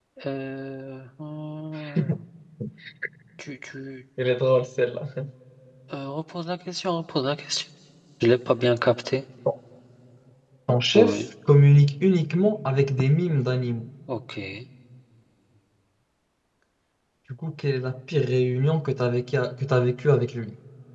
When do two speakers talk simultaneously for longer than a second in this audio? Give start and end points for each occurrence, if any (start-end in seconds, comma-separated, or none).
none